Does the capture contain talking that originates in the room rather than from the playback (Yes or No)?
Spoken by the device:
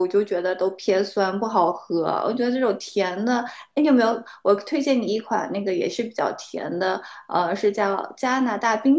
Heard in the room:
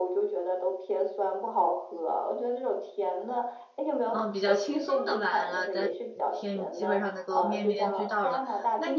Yes